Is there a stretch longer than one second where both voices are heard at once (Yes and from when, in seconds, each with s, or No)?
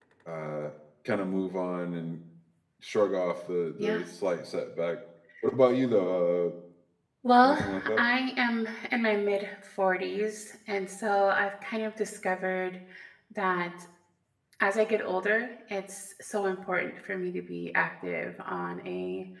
No